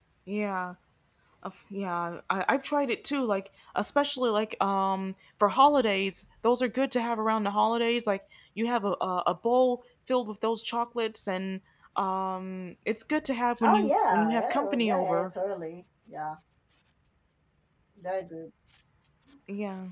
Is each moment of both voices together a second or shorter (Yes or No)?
No